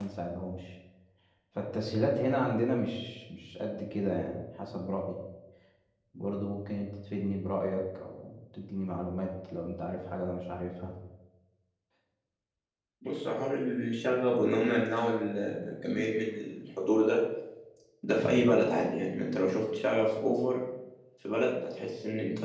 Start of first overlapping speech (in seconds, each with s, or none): none